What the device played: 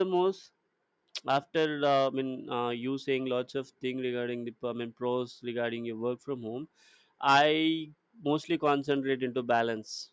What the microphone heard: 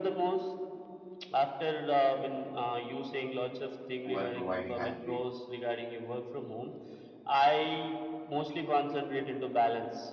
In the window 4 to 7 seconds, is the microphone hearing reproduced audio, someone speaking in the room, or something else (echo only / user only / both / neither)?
both